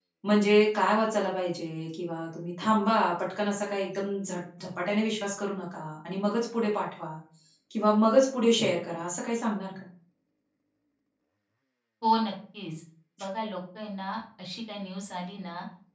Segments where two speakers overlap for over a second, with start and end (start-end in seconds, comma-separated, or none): none